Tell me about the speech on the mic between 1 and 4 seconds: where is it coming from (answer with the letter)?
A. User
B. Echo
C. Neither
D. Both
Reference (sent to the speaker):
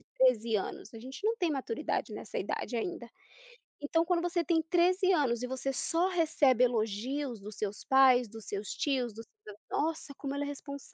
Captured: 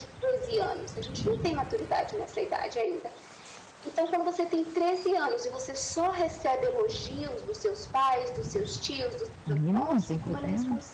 B